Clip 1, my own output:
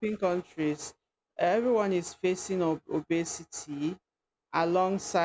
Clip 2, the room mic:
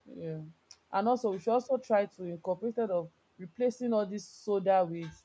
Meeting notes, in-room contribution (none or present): present